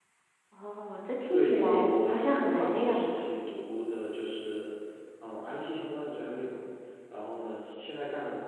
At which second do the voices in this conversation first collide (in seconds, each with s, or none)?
1.3 s